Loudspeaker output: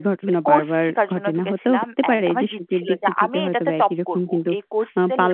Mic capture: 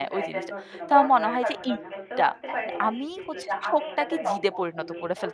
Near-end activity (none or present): present